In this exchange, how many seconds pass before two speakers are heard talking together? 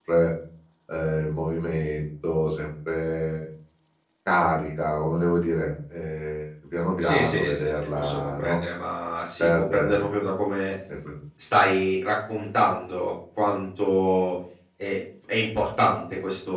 7.0 s

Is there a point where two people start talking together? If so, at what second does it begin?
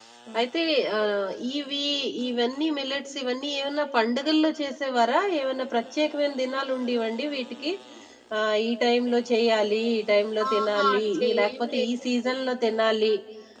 10.4 s

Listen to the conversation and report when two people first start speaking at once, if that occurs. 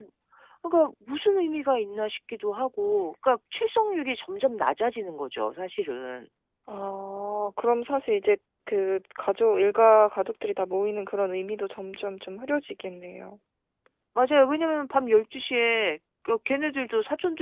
none

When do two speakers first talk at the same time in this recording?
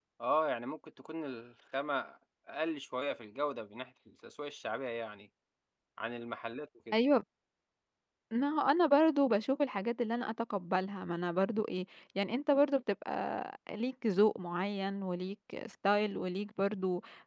none

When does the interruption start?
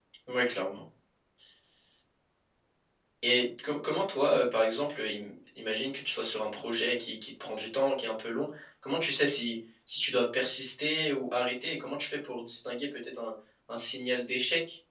none

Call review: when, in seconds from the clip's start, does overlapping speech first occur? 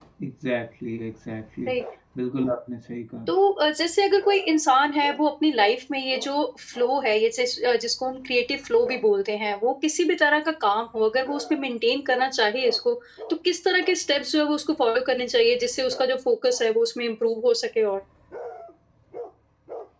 none

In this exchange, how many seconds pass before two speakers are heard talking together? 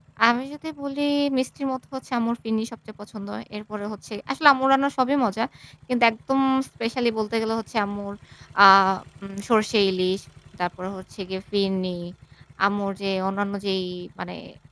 none

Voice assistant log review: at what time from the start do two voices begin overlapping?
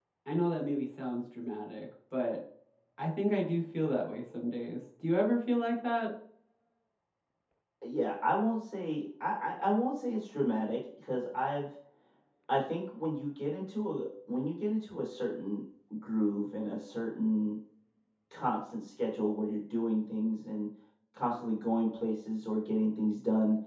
none

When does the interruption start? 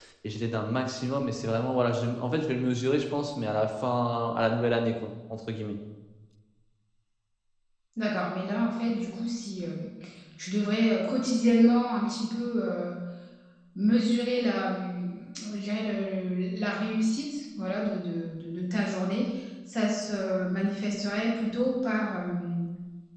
none

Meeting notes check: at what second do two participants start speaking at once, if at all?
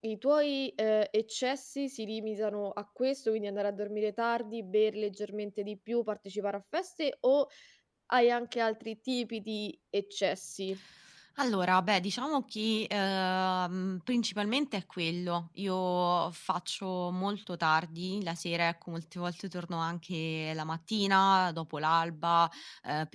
none

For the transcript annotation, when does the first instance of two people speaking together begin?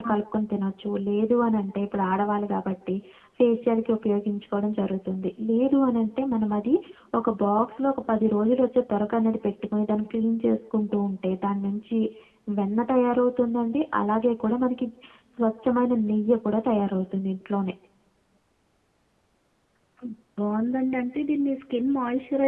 none

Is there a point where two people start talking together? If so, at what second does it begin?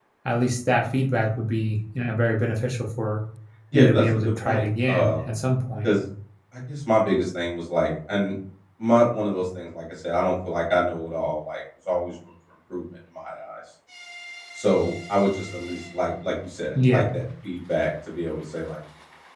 3.7 s

